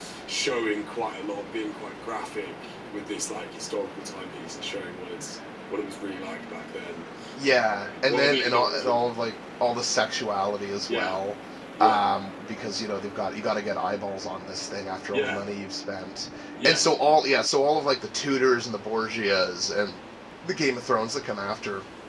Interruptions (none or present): present